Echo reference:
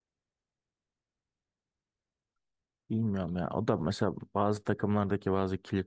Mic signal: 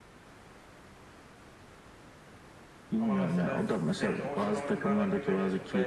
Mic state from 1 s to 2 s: neither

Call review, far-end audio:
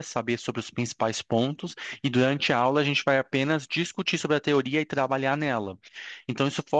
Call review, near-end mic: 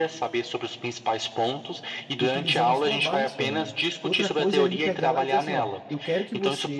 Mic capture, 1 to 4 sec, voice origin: both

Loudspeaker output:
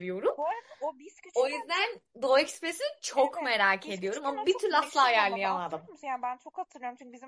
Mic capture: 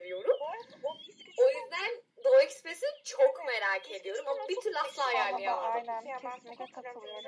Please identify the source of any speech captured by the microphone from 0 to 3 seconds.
echo only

